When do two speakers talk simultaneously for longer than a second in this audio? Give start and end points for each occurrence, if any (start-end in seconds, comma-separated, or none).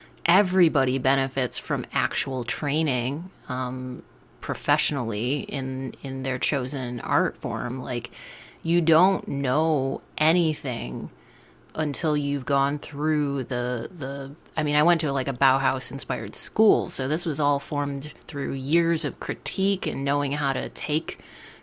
none